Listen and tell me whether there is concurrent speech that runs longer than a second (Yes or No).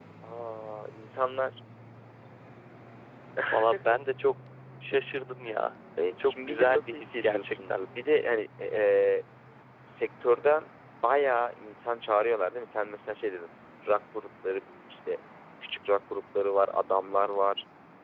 Yes